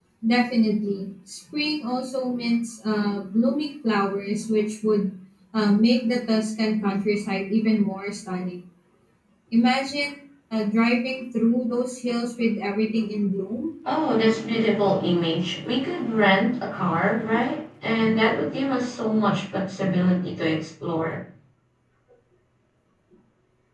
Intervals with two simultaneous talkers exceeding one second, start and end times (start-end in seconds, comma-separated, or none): none